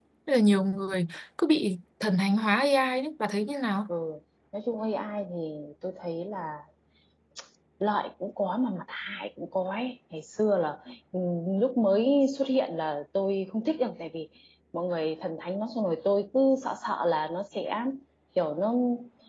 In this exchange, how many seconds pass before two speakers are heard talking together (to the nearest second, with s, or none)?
none